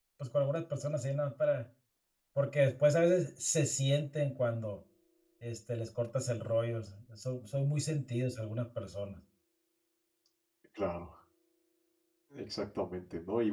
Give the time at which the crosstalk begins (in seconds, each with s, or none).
none